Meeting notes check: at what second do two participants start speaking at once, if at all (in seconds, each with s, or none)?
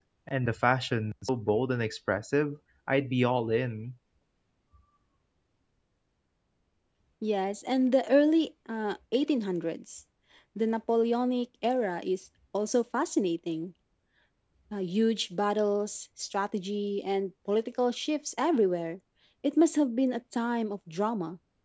none